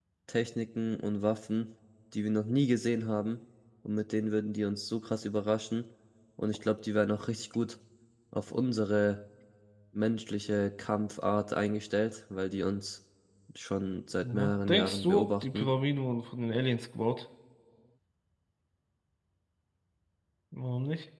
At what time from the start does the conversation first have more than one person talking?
14.2 s

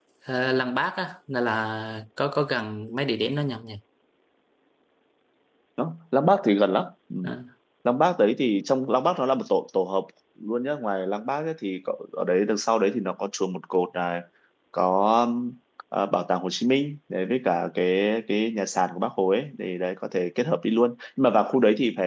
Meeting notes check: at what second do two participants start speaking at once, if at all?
none

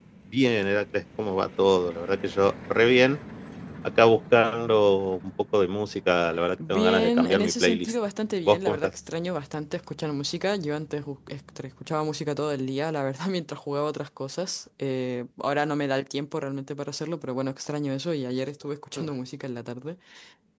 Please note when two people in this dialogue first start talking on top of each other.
6.6 s

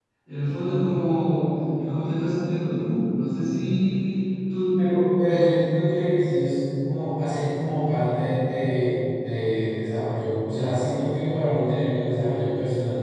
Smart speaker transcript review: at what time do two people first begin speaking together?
none

